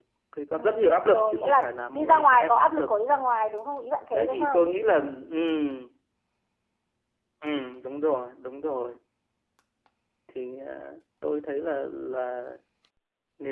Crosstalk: present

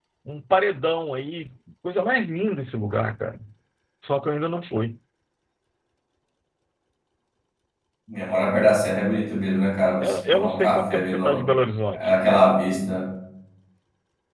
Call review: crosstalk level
present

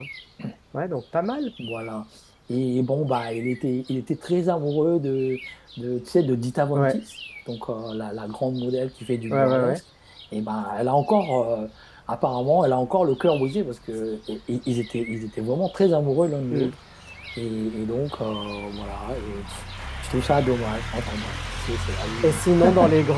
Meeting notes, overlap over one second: none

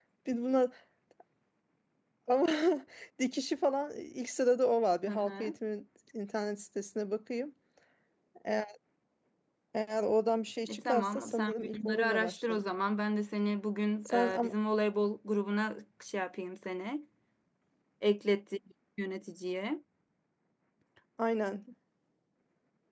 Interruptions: present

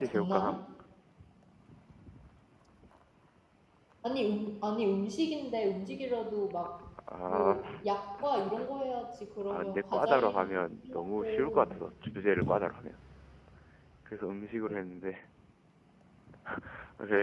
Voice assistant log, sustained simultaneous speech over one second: present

